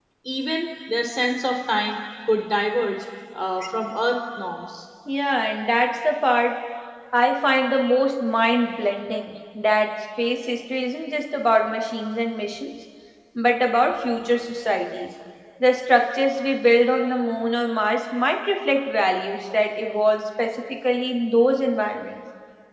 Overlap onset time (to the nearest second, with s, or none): none